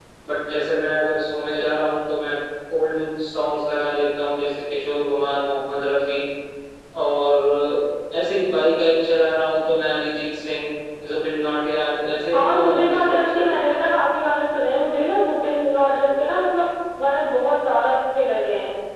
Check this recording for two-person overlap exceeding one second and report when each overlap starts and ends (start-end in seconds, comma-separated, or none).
12.3-13.8